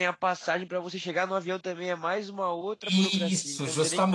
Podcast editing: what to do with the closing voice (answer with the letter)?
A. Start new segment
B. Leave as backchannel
A